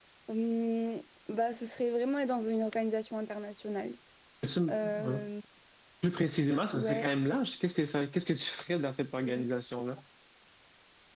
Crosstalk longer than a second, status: none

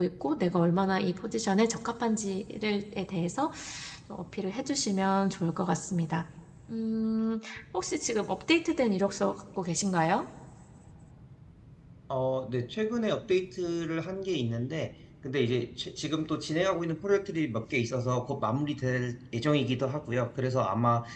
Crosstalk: none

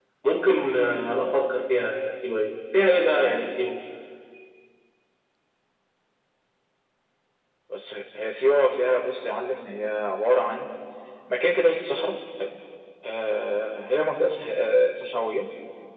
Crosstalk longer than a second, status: none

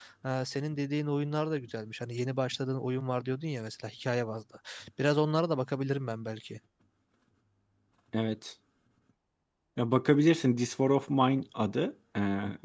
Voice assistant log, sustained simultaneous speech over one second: none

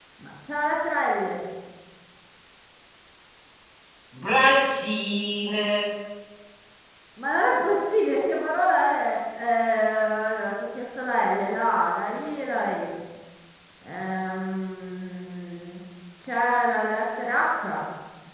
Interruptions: none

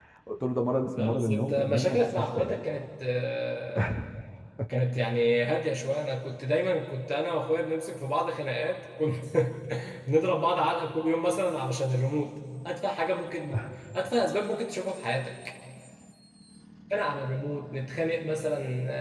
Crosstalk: present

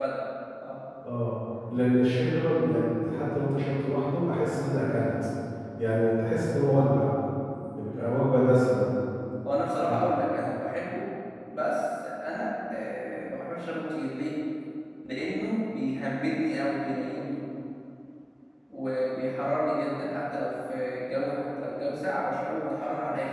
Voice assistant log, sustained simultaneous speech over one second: none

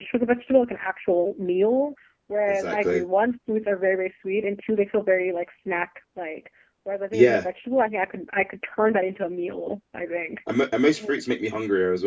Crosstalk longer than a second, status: none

